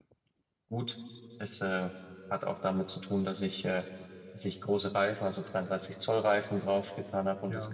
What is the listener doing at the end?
listening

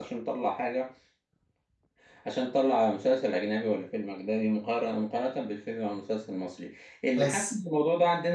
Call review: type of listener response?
listening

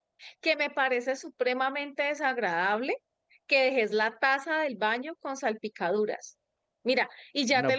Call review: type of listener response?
listening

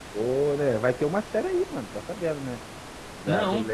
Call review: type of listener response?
listening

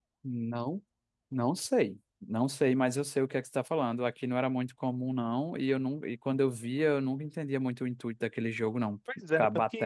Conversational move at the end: taking over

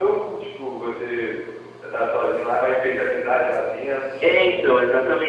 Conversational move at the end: taking over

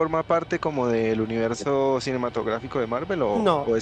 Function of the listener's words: taking over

